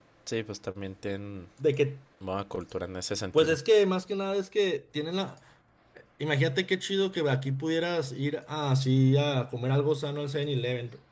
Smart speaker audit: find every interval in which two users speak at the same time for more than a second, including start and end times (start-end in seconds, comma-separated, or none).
none